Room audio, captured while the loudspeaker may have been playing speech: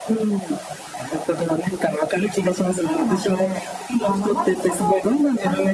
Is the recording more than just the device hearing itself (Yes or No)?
Yes